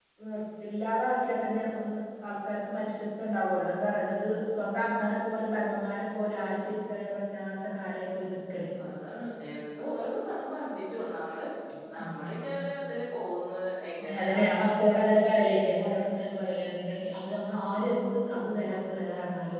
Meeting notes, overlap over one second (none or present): none